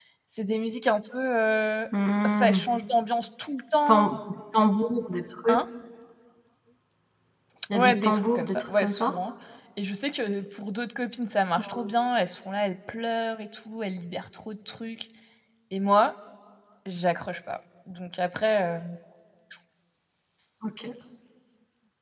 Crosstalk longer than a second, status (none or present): present